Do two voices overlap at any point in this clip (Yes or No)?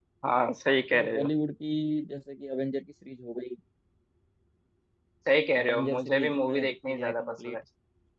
Yes